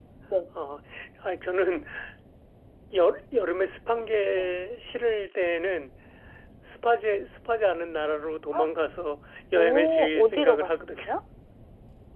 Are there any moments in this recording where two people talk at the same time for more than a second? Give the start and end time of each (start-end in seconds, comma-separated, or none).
9.6-10.9